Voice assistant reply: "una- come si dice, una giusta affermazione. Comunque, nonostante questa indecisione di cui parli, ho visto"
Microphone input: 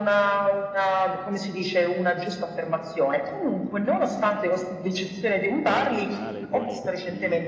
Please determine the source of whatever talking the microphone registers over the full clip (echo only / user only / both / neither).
both